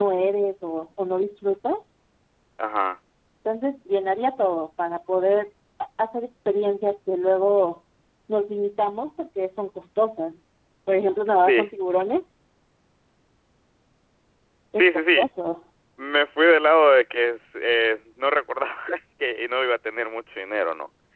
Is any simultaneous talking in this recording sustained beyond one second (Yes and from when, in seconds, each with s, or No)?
No